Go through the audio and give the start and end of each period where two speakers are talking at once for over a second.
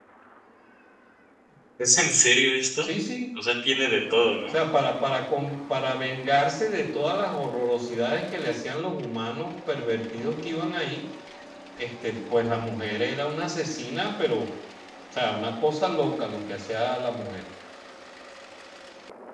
none

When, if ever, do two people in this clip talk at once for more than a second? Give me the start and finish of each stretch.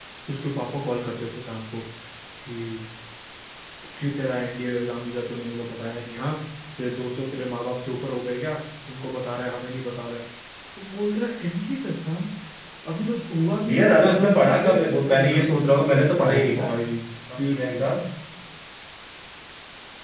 13.7-15.4

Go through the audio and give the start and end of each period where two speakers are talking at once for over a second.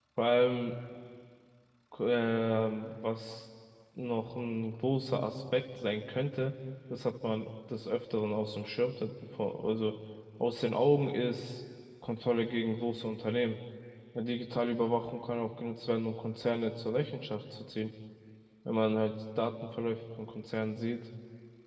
none

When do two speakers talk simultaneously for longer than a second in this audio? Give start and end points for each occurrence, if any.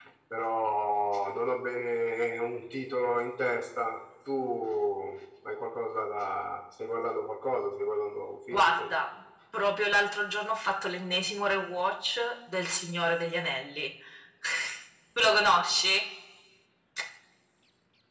none

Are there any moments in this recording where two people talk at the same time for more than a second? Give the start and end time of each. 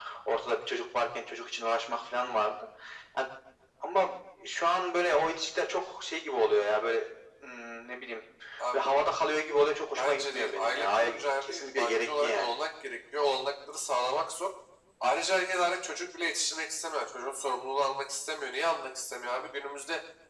10.0-12.5

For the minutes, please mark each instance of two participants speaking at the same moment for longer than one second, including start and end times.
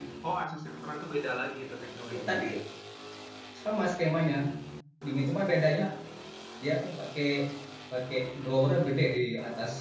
none

